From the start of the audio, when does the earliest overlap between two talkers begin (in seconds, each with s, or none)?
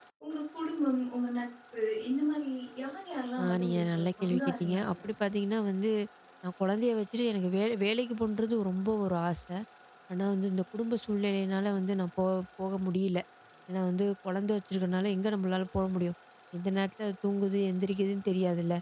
3.4 s